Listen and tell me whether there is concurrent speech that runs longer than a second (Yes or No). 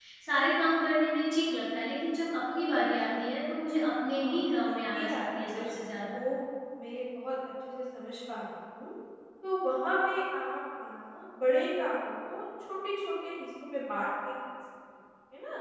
Yes